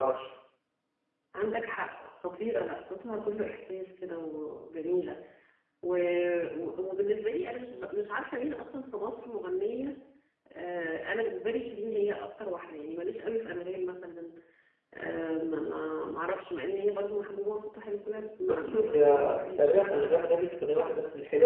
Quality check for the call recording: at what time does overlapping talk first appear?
18.4 s

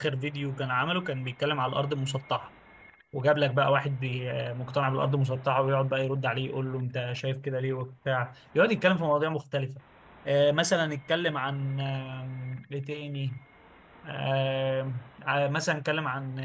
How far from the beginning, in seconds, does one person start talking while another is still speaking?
none

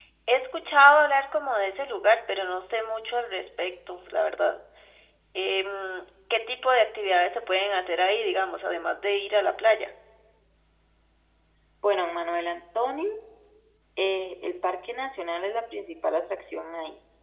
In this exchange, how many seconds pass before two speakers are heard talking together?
none

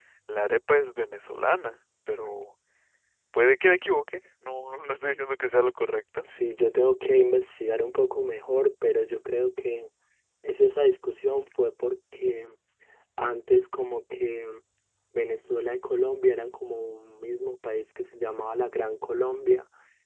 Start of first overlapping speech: none

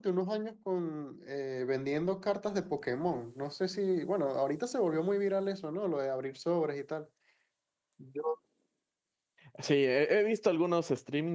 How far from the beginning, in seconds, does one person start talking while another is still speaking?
none

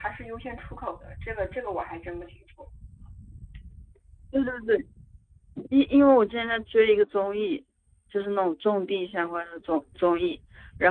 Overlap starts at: none

